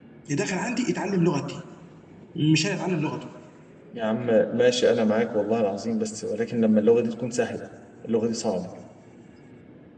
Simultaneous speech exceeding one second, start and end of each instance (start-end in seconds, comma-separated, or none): none